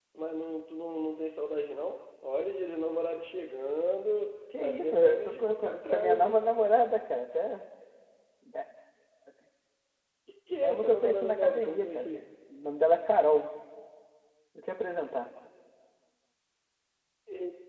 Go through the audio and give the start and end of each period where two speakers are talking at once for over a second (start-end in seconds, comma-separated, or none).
4.6-6.4, 10.6-12.1